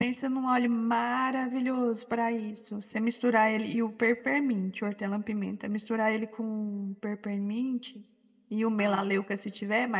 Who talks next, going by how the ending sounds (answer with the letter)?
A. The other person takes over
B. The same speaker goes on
B